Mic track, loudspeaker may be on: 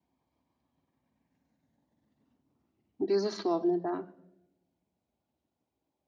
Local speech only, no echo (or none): Безусловно, да.